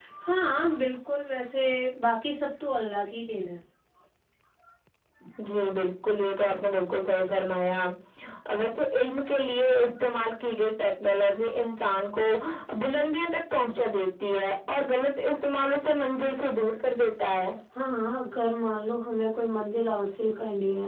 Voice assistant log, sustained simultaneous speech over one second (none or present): none